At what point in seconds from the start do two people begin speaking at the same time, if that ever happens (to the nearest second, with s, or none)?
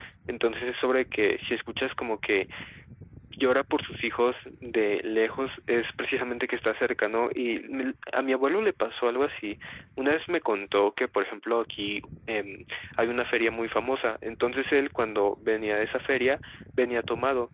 none